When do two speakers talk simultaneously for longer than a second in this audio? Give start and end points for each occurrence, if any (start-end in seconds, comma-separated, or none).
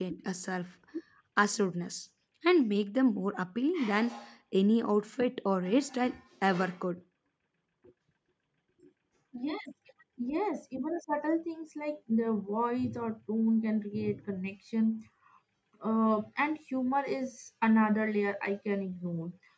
none